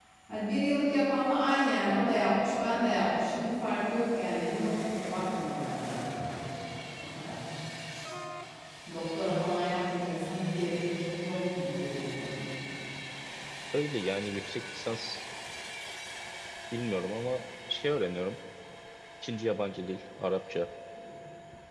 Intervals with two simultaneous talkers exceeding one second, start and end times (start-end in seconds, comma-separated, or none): none